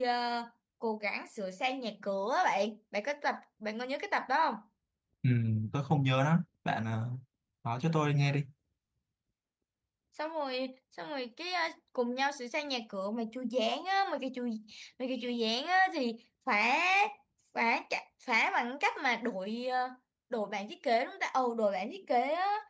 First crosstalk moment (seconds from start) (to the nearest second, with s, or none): none